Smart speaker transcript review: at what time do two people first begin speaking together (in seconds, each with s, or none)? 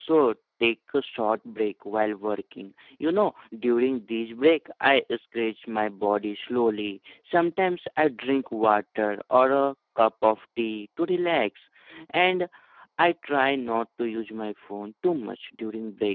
none